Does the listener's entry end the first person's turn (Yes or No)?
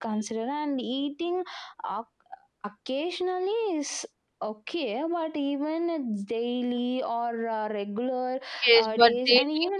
Yes